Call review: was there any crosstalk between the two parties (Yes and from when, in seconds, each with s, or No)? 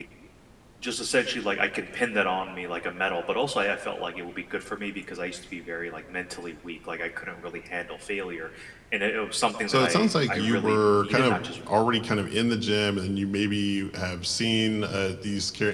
Yes, from 9.7 s